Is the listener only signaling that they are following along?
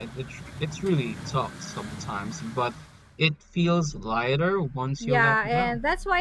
No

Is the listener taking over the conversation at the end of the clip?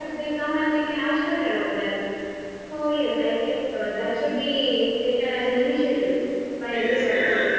Yes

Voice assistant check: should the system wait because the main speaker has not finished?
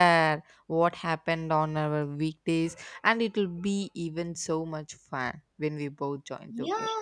No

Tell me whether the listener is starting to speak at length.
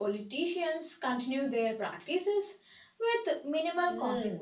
Yes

